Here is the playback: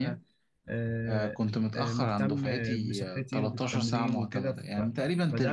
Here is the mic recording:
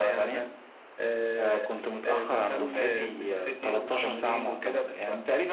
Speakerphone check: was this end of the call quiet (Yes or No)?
Yes